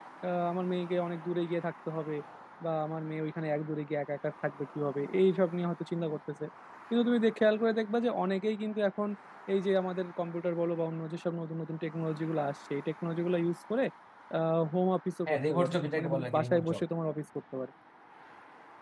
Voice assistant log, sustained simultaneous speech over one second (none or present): present